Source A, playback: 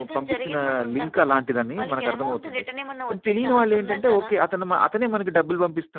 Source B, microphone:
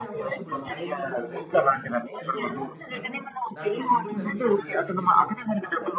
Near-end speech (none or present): present